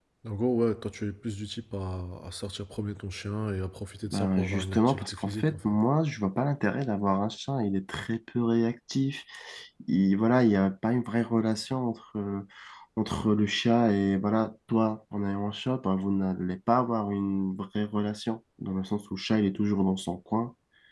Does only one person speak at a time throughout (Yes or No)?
No